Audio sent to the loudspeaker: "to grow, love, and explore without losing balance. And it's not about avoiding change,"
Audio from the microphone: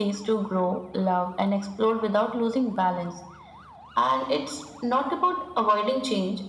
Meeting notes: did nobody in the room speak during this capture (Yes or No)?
Yes